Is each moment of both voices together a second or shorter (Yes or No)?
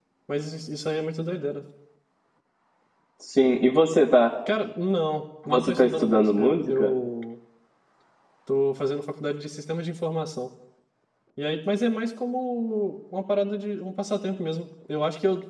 No